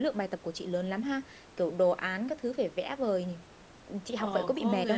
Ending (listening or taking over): taking over